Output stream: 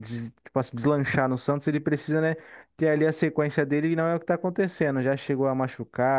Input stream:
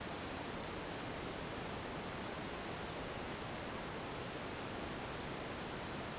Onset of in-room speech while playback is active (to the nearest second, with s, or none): none